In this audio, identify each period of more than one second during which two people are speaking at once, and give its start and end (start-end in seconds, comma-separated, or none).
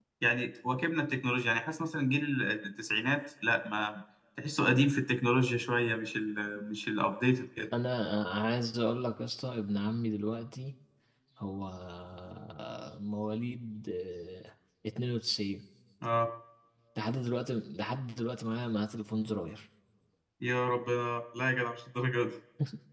none